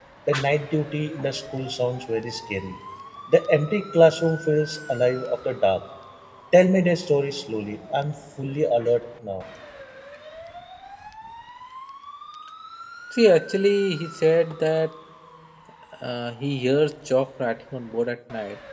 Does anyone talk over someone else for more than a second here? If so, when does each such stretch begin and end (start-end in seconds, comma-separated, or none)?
none